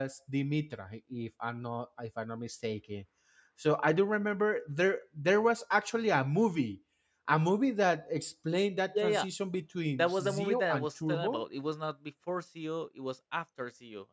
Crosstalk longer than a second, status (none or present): present